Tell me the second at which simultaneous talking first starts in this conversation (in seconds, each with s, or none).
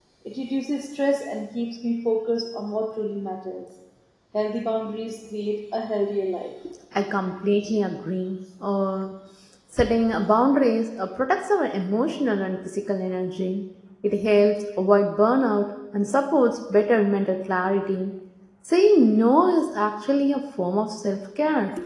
none